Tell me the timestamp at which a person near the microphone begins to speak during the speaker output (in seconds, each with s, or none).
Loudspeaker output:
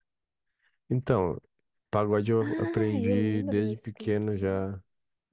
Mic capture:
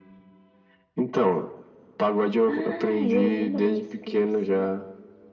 none